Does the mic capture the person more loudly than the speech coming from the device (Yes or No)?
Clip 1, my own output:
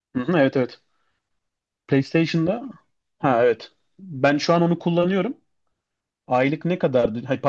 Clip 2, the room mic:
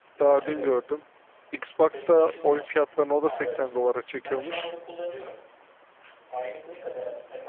Yes